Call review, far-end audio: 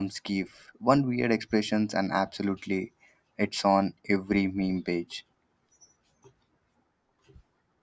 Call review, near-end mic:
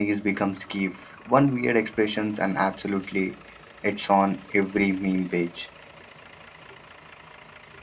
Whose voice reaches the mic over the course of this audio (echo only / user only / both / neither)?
echo only